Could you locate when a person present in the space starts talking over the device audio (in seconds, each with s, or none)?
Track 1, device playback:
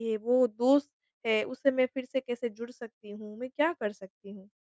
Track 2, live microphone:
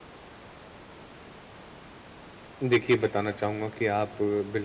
2.7 s